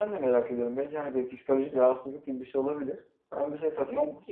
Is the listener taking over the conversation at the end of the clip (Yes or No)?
No